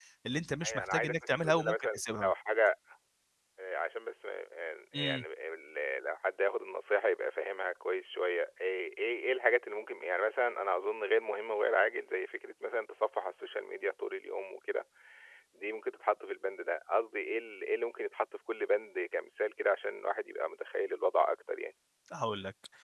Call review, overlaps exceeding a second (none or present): present